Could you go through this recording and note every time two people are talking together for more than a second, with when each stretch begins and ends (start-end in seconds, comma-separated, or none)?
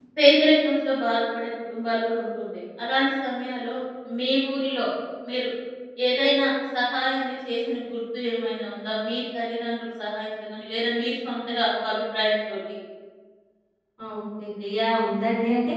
none